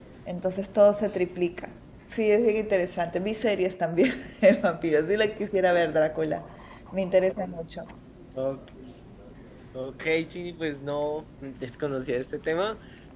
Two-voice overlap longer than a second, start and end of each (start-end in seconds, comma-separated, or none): none